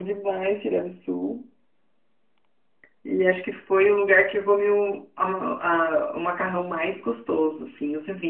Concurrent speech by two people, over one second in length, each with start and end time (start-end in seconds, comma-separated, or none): none